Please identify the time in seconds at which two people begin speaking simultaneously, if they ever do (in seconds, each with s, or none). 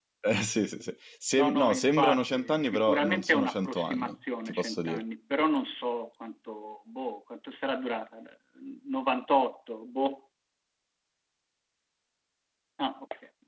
1.4 s